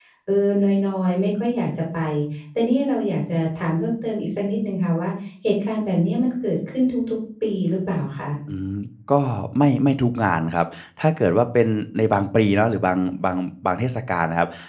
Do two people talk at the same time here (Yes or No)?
No